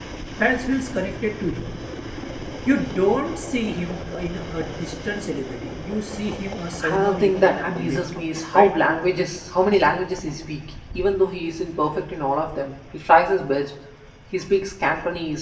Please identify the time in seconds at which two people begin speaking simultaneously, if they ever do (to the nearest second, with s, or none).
7 s